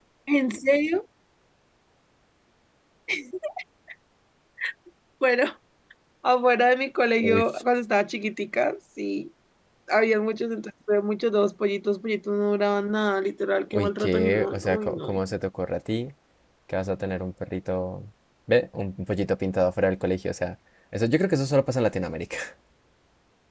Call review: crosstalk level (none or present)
present